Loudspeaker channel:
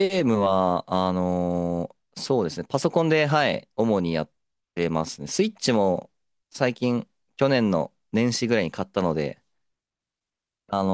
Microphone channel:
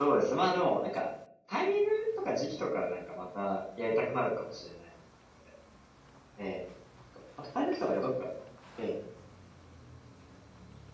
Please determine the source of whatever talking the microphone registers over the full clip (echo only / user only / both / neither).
user only